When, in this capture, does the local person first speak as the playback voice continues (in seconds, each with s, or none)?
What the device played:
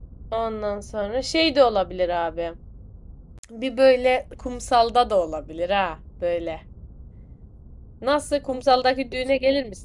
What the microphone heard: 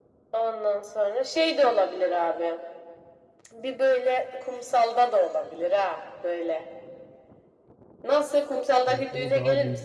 8.8 s